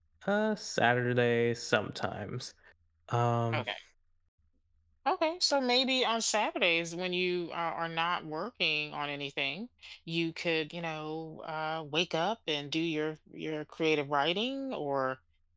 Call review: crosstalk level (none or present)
none